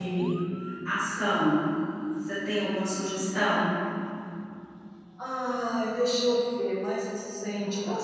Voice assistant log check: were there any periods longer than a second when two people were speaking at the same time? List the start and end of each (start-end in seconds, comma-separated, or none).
none